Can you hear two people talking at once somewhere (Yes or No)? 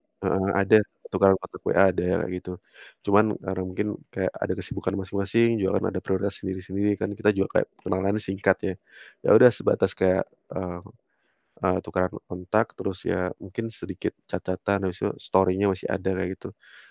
No